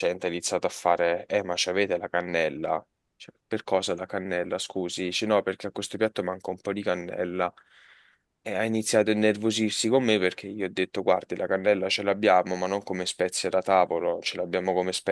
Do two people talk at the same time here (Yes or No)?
No